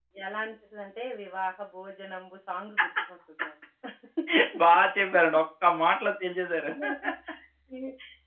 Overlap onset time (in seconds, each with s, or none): none